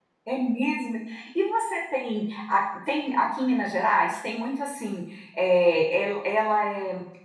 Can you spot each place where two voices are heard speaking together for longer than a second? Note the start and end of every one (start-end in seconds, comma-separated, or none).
none